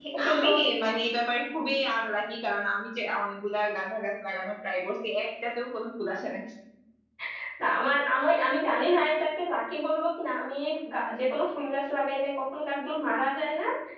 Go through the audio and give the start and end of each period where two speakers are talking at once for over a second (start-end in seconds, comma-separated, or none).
none